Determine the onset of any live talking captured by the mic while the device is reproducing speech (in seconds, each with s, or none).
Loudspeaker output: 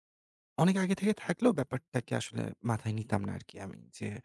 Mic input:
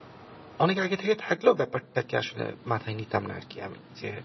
none